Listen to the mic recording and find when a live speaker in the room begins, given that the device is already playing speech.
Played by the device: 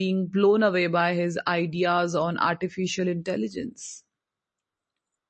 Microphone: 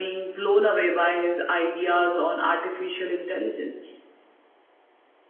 none

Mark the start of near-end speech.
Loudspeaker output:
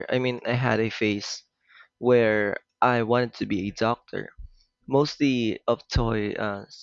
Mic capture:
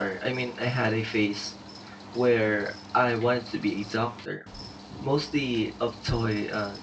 none

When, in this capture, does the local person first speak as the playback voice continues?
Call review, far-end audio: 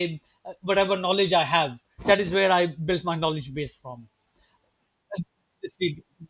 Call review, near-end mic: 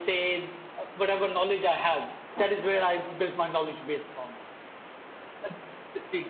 none

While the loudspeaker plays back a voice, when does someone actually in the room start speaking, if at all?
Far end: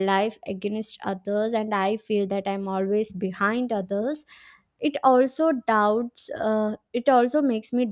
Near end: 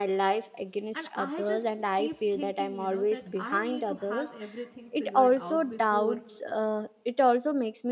0.9 s

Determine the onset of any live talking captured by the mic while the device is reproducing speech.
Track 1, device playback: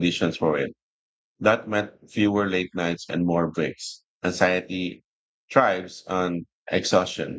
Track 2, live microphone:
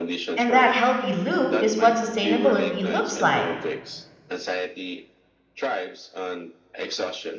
0.4 s

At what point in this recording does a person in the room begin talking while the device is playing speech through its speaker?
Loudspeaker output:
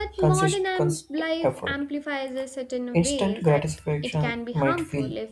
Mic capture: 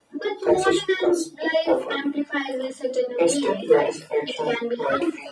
none

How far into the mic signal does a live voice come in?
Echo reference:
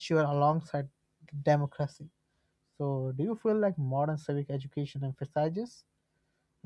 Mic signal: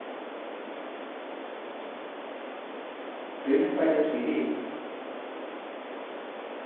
3.4 s

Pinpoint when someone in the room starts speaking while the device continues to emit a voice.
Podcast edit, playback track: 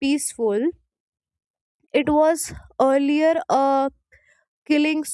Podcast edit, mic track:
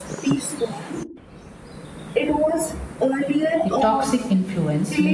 3.6 s

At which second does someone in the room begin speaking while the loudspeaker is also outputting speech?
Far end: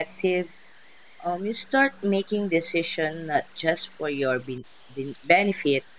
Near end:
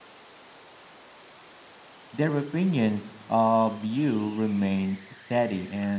2.1 s

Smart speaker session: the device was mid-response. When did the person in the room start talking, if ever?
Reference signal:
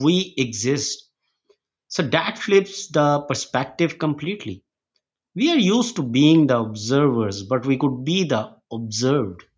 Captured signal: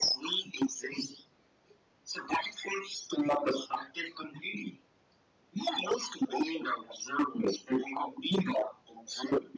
none

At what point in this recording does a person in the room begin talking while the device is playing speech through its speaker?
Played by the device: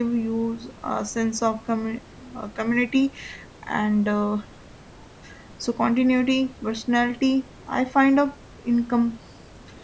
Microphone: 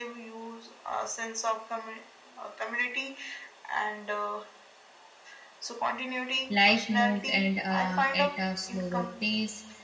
6.5 s

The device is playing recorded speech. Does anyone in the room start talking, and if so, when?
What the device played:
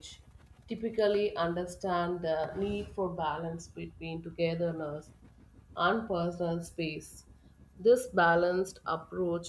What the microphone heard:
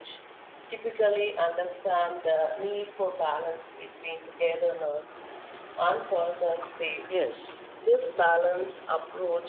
7.1 s

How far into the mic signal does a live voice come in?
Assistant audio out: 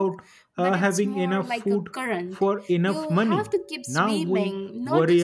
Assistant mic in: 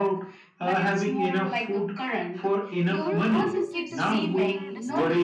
3.0 s

